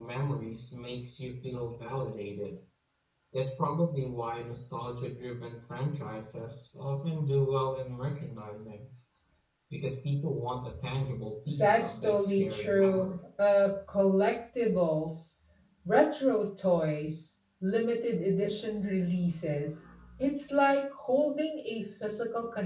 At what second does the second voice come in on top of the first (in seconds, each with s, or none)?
11.4 s